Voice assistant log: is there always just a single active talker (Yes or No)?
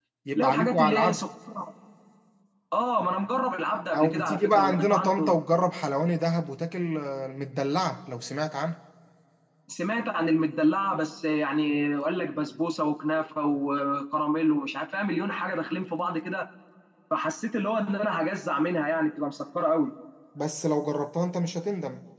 No